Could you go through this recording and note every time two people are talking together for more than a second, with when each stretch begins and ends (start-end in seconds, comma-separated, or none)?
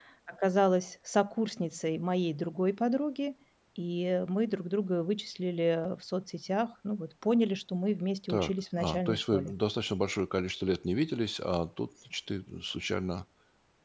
8.3-9.5